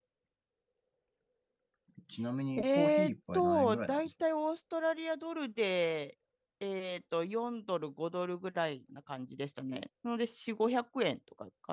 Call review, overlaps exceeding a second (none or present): present